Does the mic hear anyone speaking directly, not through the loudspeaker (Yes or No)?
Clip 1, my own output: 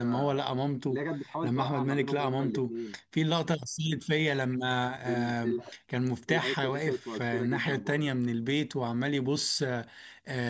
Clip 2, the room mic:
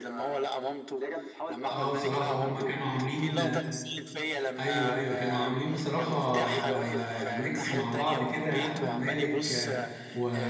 Yes